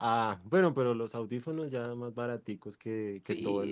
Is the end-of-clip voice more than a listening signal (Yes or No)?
Yes